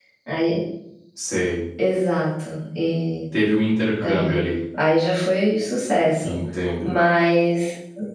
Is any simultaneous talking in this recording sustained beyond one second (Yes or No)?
No